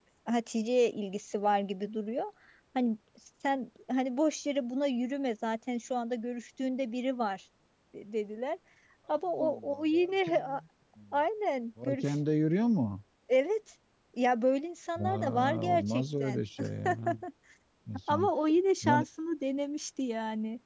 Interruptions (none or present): present